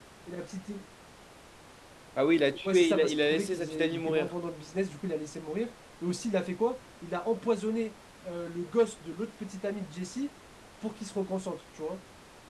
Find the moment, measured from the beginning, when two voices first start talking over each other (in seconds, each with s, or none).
2.6 s